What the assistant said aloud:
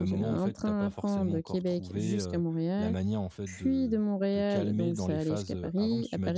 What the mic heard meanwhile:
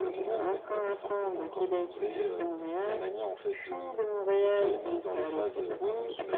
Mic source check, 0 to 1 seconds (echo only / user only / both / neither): echo only